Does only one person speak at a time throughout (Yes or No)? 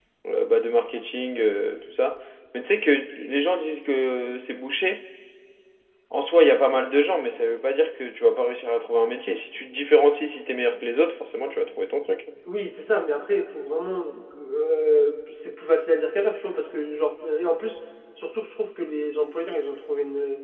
Yes